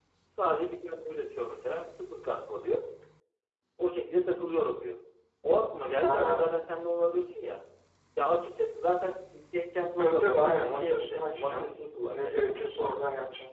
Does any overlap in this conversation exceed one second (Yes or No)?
Yes